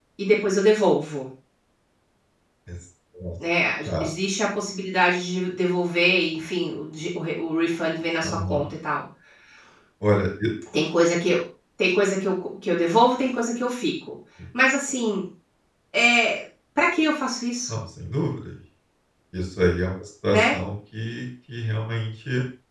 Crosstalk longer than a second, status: none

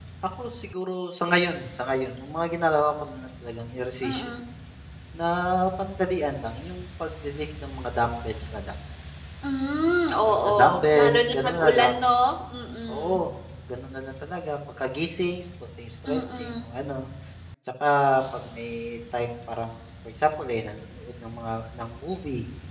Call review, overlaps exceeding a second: present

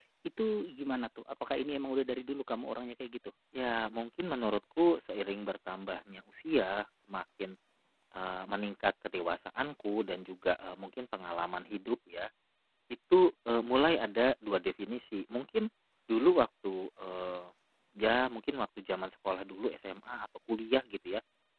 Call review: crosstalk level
none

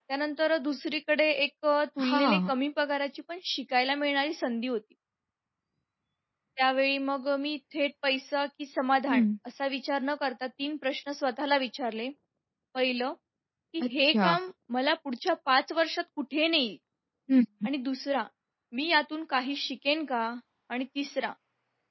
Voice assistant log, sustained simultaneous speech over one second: none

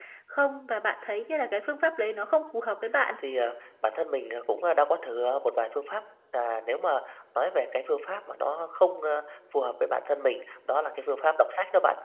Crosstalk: none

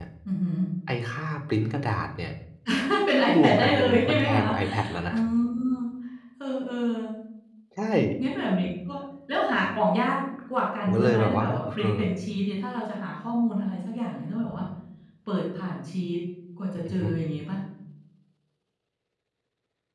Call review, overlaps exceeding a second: present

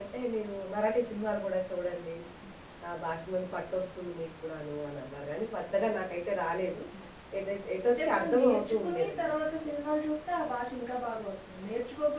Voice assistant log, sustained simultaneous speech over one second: present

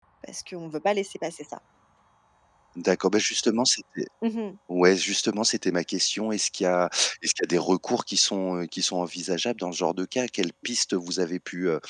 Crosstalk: none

